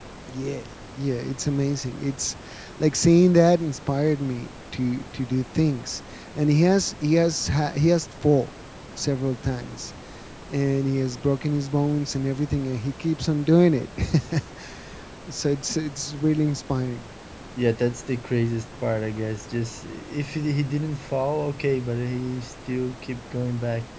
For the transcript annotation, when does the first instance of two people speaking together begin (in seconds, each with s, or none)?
none